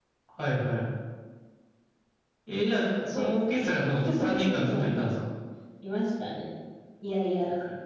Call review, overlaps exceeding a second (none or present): present